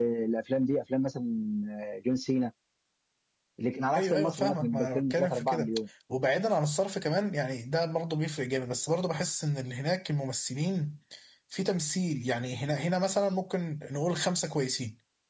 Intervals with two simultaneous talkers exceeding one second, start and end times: 4.0-5.7

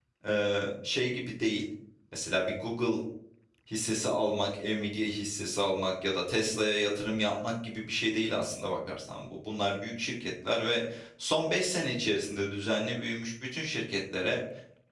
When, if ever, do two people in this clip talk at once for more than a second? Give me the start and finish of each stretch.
none

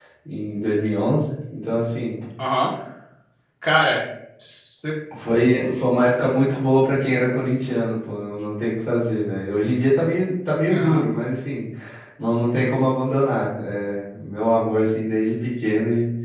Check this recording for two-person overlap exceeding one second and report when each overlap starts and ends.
none

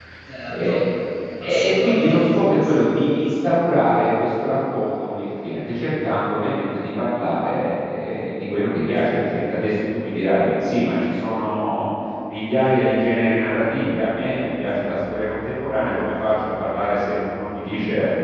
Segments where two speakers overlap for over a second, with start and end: 1.4-2.7

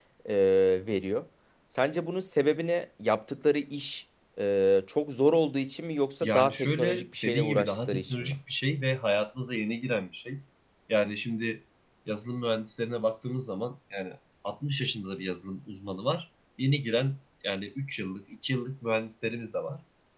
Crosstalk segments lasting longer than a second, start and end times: 6.2-8.3

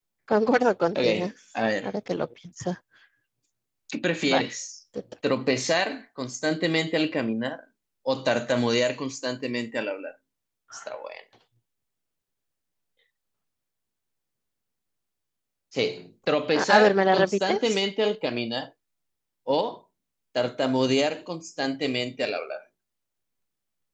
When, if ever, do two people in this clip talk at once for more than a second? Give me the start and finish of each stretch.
16.6-17.8

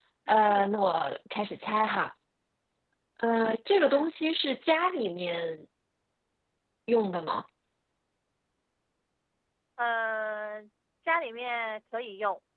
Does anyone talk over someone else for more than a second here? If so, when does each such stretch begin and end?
none

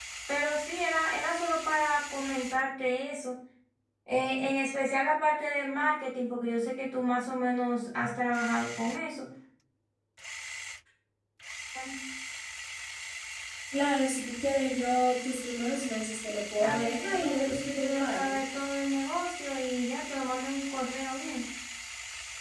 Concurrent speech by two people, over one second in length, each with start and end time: 16.6-18.4

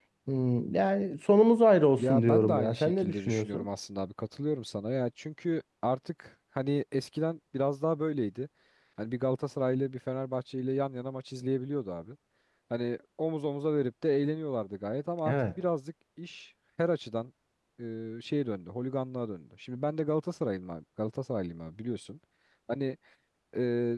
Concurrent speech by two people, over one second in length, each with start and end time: 2.0-3.6

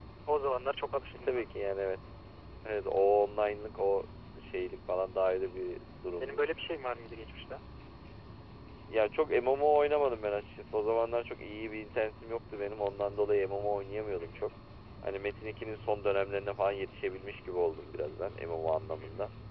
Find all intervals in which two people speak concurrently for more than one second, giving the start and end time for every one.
none

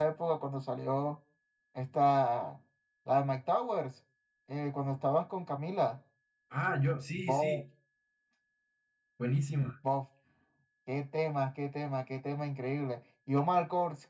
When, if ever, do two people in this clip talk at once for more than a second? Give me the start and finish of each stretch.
none

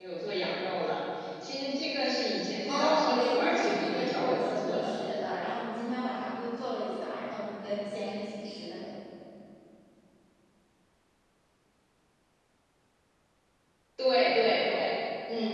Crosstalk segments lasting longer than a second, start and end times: 2.7-4.9

